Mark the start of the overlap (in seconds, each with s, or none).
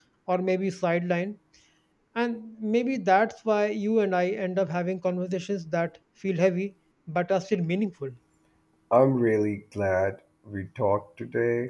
none